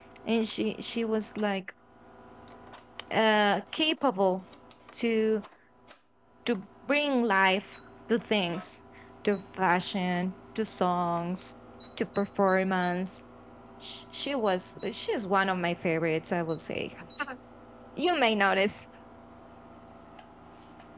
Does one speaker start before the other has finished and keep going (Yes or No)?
No